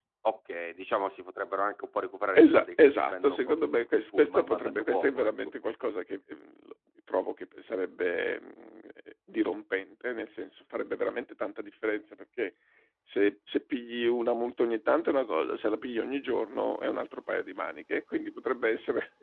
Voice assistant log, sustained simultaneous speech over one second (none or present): present